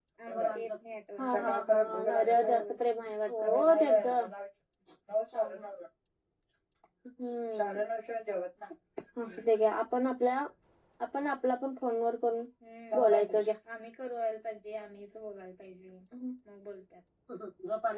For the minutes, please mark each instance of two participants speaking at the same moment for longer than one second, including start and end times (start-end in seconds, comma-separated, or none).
none